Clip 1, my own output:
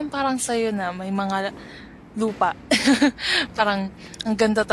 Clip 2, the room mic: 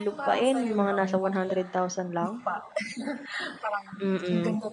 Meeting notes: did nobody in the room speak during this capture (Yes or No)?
No